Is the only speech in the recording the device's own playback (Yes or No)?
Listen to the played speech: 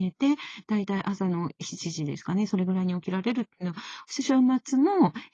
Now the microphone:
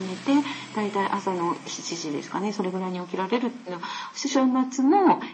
Yes